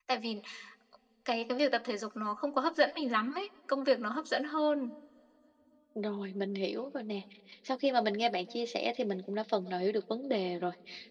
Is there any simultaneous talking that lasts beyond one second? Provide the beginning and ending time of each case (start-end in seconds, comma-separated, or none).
none